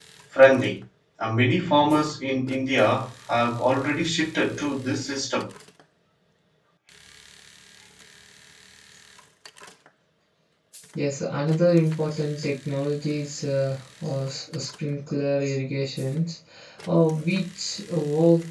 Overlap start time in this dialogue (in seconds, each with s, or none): none